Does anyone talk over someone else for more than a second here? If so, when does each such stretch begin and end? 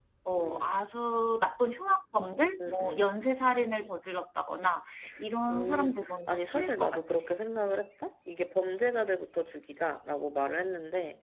5.5-7.0

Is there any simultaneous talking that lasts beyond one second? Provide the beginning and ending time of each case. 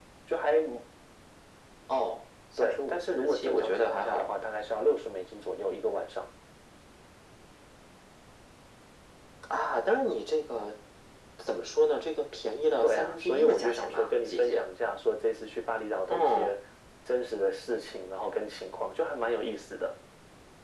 2.6-4.3, 12.8-14.7

